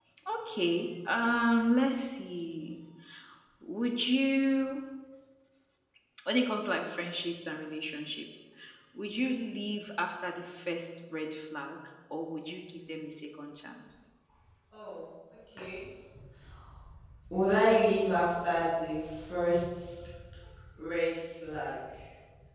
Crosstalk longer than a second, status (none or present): none